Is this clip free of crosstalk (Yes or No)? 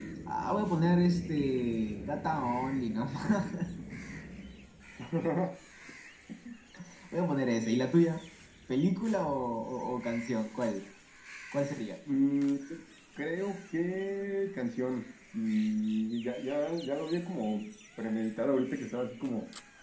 Yes